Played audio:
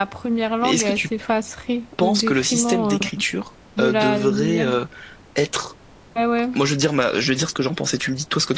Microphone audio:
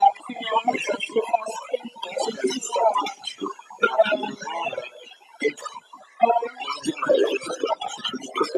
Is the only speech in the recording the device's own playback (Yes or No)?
Yes